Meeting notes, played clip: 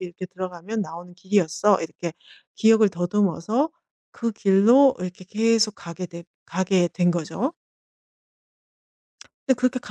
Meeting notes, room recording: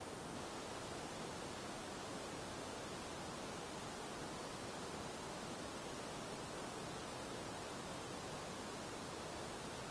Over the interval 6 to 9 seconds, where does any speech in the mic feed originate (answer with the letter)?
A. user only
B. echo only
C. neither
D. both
C